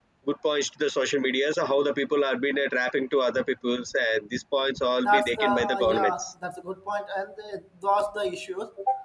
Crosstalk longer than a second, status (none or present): present